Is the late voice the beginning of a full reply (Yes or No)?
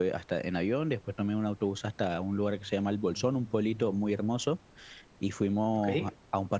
No